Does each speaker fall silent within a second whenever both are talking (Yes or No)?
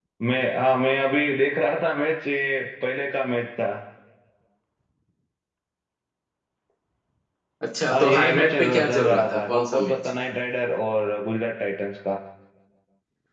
No